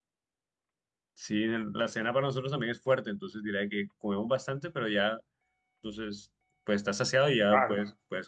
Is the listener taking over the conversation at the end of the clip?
Yes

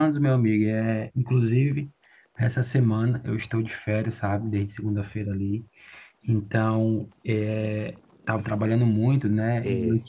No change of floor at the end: Yes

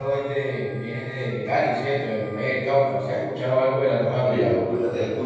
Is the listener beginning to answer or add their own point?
Yes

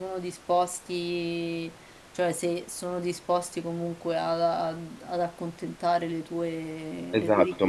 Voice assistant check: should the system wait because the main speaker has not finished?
No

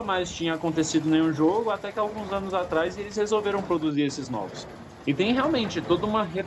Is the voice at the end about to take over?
No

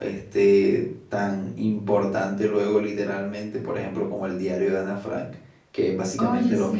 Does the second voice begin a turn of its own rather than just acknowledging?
No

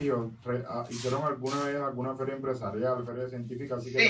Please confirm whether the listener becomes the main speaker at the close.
Yes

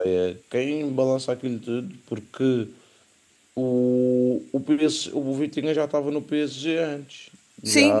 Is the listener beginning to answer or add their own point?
Yes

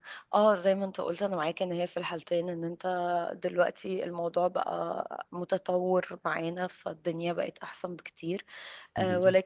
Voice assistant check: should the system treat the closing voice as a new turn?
No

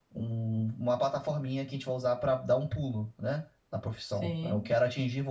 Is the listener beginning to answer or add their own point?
No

